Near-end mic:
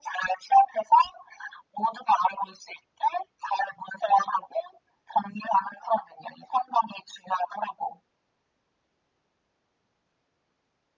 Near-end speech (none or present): none